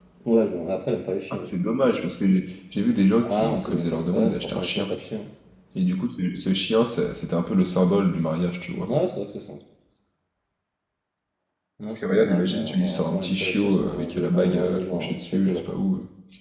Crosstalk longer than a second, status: present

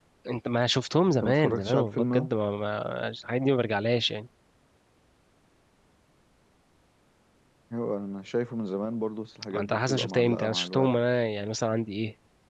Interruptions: present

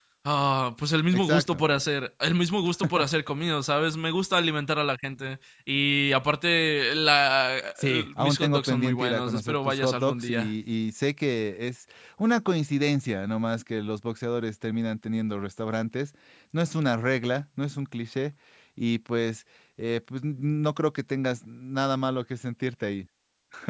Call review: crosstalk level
present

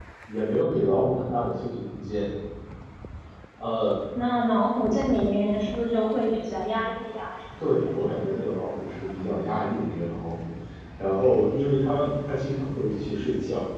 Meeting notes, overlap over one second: none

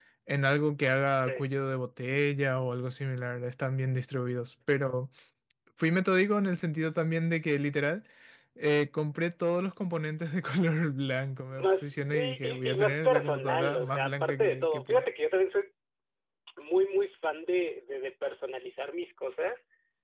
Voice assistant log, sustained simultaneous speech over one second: present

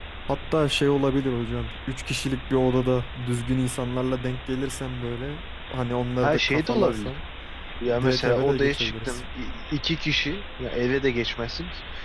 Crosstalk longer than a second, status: present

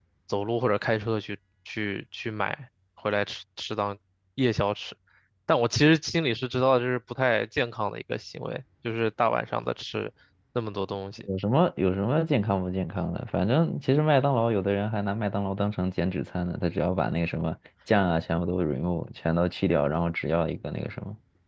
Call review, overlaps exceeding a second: none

